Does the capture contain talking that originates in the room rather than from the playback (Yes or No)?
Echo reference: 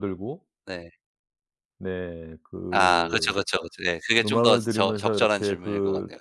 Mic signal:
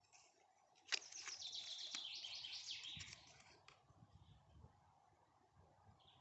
No